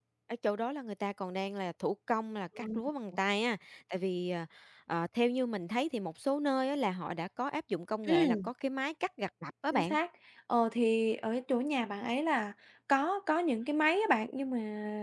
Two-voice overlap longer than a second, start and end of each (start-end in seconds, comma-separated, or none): none